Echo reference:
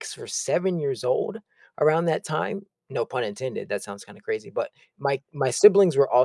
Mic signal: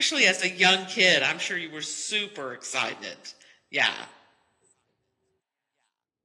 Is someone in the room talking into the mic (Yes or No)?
Yes